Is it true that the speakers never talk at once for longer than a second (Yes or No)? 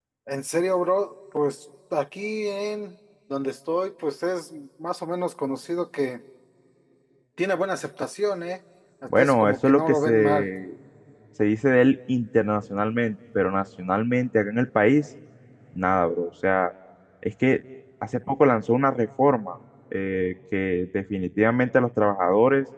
No